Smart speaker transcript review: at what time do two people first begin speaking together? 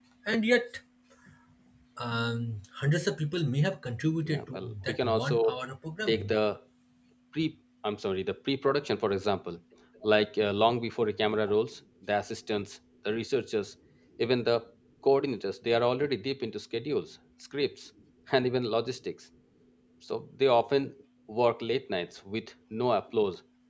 4.2 s

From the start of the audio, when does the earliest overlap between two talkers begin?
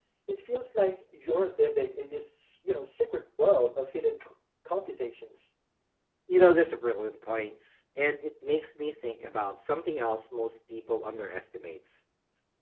none

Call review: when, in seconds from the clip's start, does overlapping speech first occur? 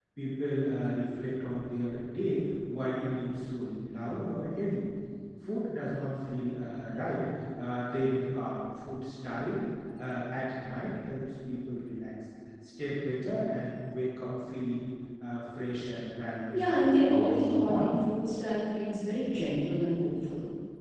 16.5 s

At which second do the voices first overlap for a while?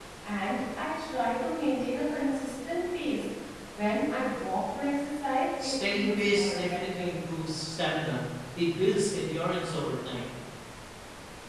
5.6 s

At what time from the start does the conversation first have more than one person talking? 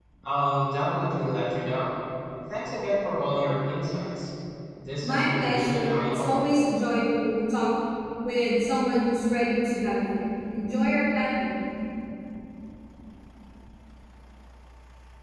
5.0 s

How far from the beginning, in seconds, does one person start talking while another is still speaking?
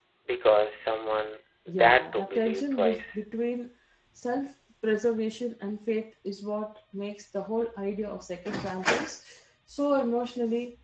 1.7 s

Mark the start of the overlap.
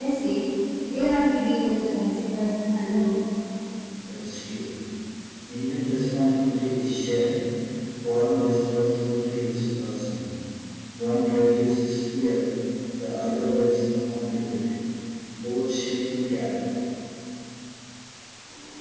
none

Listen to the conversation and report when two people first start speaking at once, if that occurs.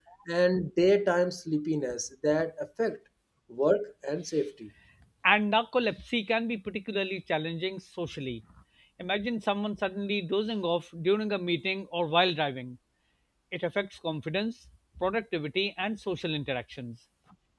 none

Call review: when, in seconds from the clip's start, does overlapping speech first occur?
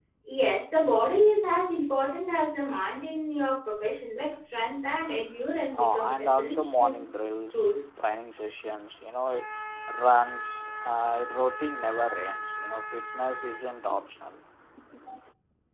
5.8 s

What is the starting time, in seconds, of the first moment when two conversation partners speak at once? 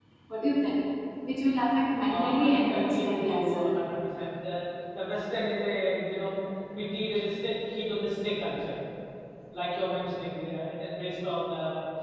2.0 s

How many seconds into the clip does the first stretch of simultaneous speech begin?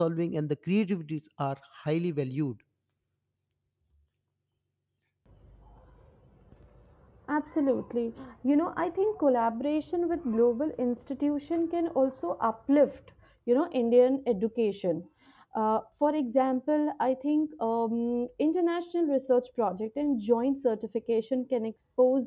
none

